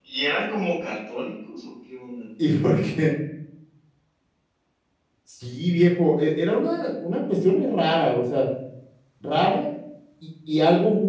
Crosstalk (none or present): none